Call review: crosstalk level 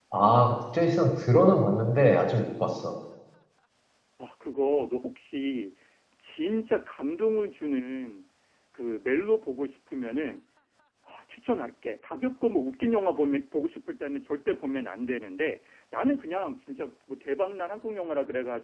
none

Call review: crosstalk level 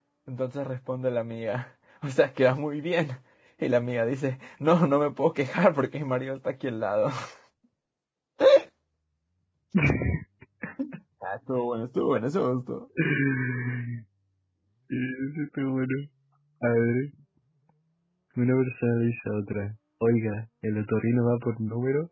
none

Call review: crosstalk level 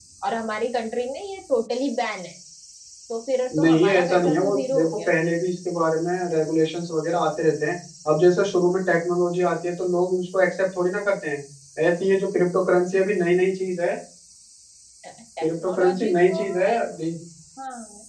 present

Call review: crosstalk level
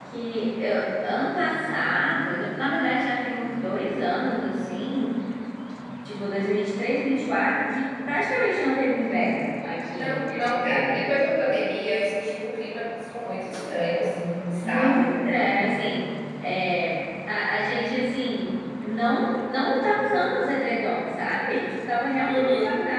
present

